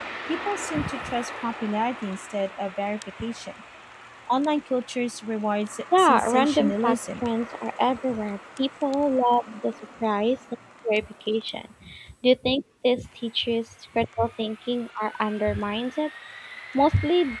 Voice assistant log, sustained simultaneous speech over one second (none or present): present